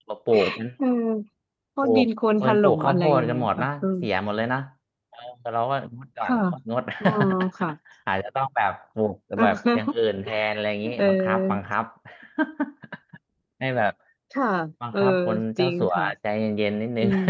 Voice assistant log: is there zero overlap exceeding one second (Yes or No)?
No